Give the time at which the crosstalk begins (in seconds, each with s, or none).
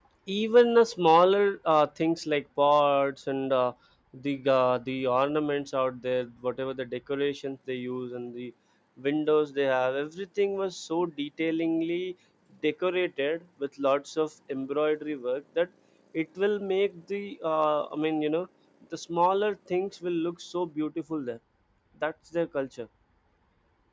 none